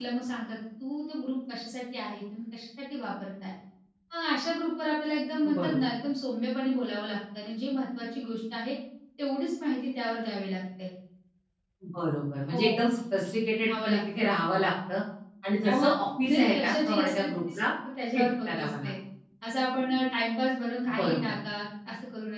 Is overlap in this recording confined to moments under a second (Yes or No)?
No